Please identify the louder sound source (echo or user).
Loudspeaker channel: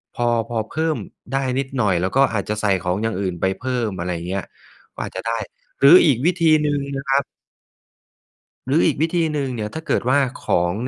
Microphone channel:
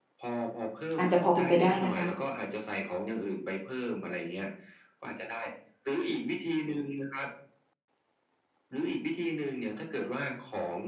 user